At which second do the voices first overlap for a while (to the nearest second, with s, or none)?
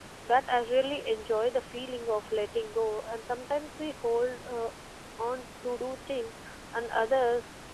none